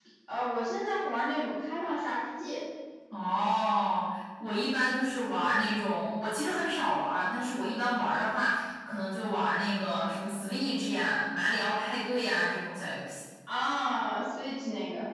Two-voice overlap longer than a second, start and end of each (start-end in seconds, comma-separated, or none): none